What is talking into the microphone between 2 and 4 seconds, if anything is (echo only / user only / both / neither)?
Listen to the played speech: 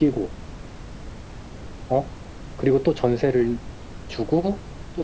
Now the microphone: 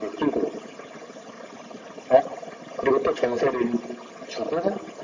echo only